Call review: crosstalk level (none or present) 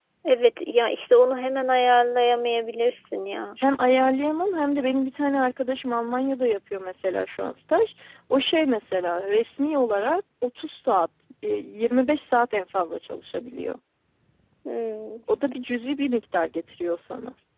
none